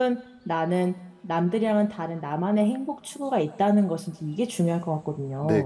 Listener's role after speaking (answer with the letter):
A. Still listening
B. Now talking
B